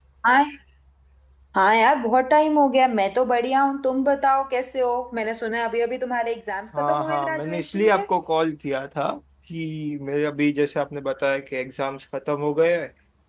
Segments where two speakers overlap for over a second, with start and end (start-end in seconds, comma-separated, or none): 6.8-8.0